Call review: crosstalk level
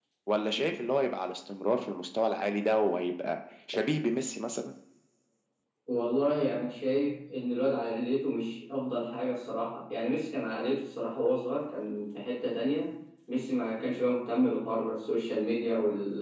none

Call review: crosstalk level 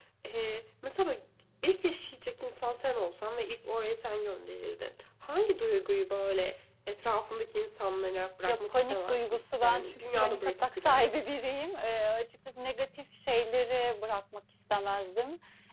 present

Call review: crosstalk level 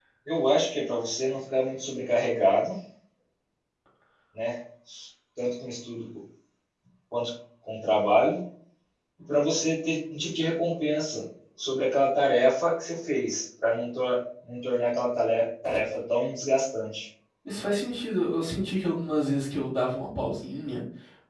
none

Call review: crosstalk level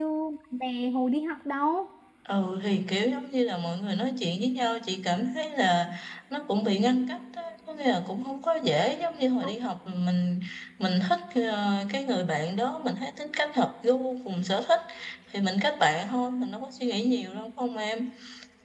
none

